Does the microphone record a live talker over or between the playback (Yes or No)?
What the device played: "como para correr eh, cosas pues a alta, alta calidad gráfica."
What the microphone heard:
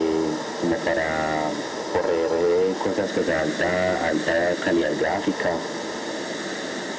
No